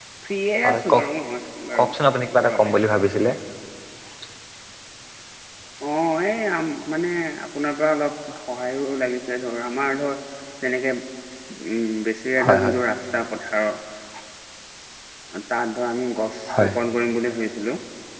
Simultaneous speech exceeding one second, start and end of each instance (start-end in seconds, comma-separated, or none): none